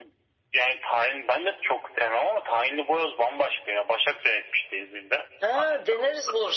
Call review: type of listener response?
taking over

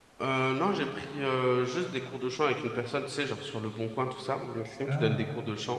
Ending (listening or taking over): listening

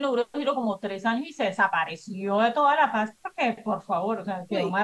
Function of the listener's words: listening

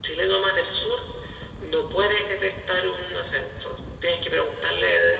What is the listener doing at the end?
listening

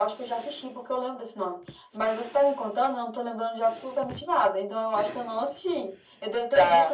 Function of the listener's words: listening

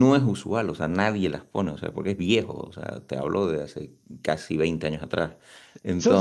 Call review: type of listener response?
taking over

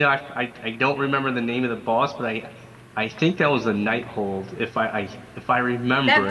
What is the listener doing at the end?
taking over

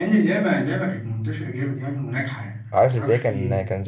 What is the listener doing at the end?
taking over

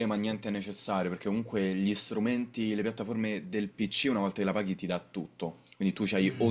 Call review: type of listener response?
listening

